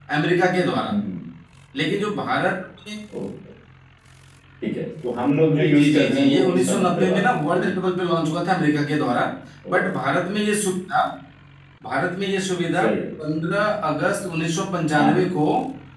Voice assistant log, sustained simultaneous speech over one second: present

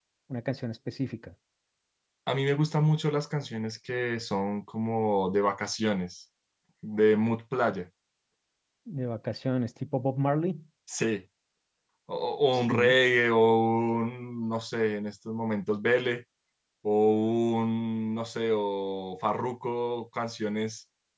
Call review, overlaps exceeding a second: none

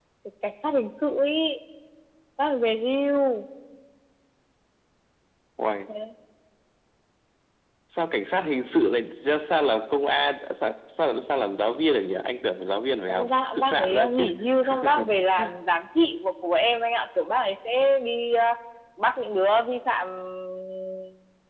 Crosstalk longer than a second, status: present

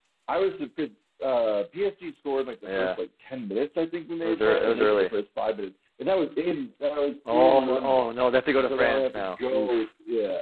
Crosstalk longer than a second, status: present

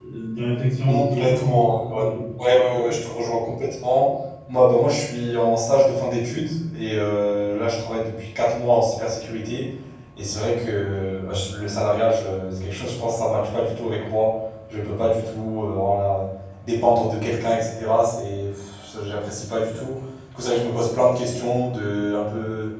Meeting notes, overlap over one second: present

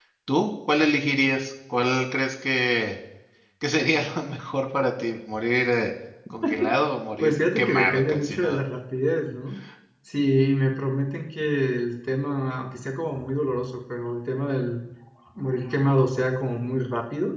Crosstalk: present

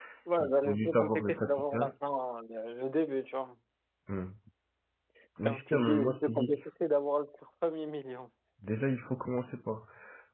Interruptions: present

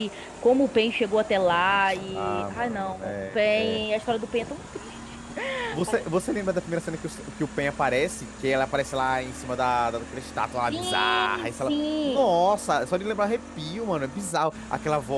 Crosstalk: present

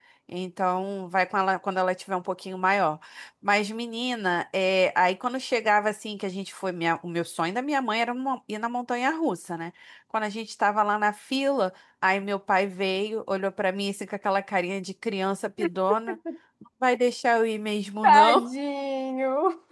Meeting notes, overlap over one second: none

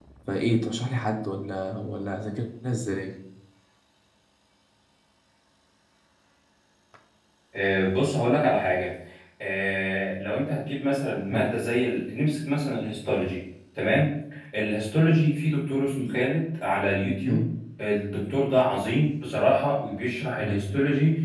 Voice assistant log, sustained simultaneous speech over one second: none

